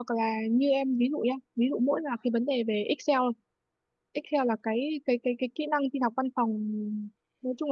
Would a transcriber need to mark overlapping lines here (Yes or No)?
No